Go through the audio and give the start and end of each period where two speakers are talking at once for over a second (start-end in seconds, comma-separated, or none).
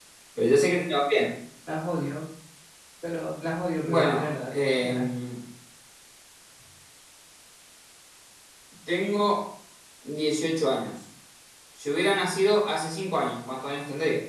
3.8-5.0